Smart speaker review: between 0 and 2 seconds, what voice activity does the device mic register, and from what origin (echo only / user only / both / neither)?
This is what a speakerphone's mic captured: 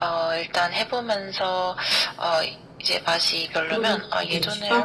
echo only